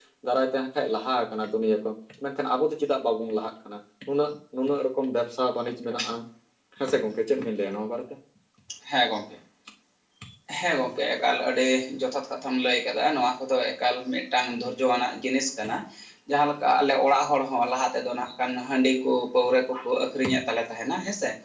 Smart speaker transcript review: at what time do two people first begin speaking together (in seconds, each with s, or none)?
none